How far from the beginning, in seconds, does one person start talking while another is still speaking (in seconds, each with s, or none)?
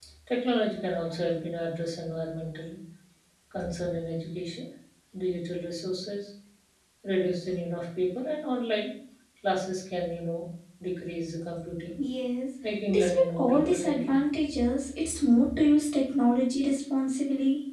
12.9 s